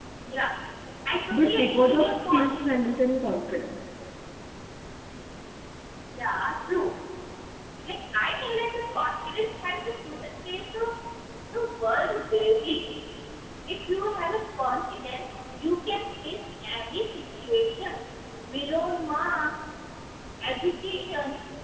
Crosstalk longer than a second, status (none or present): present